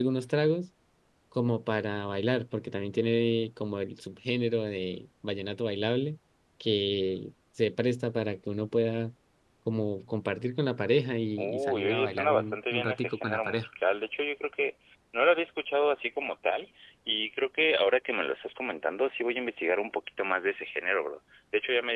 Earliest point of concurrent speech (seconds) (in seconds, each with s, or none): 11.4 s